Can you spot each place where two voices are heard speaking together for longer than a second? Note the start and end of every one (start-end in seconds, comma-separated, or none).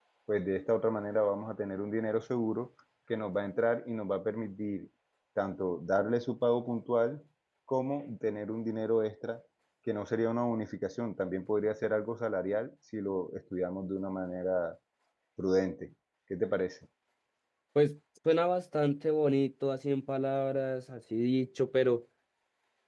none